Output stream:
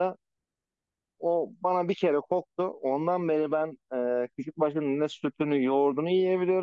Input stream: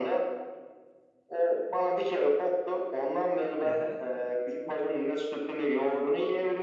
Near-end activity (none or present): present